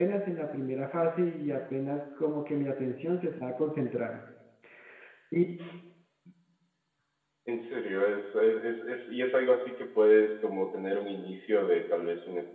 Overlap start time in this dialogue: none

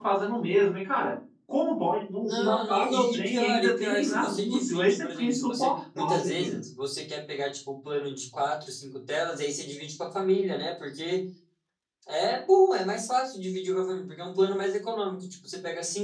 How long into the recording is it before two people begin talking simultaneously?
2.3 s

